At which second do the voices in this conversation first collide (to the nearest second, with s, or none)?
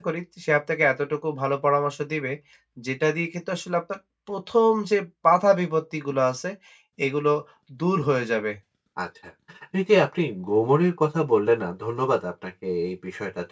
none